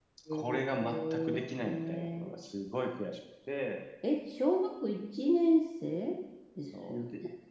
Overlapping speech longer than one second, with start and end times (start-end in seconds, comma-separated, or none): 0.8-2.3